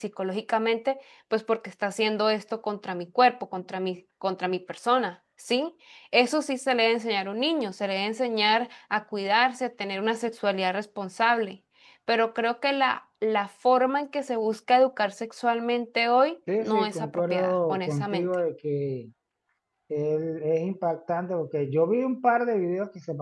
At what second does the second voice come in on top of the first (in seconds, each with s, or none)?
16.5 s